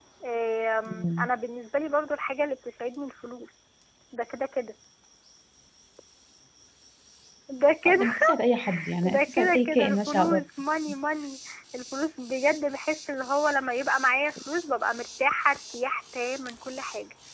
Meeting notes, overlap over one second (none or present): present